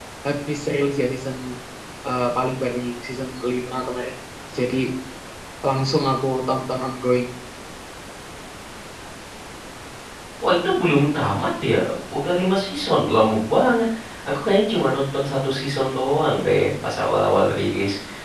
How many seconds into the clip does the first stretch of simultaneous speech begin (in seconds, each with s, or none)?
none